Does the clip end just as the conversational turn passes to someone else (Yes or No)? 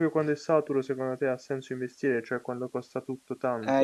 Yes